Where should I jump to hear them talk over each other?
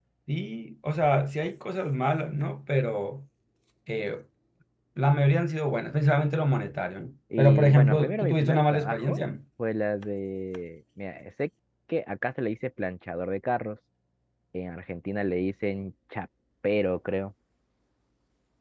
7.3 s

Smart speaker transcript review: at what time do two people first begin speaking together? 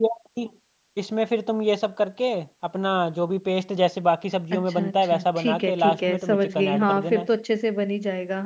4.5 s

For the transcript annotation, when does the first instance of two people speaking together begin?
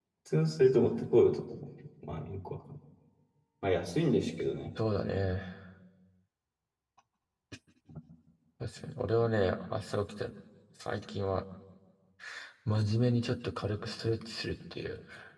none

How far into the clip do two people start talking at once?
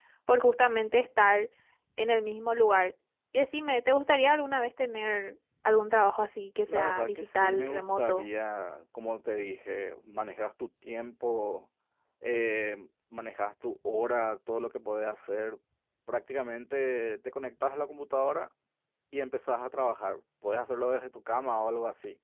6.7 s

